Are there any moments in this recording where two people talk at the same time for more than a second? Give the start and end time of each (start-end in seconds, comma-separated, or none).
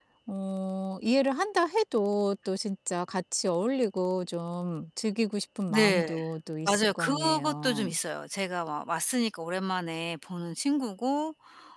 6.7-8.0